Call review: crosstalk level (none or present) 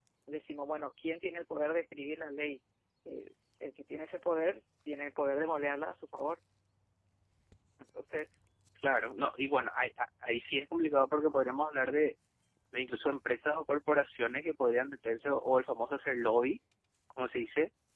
none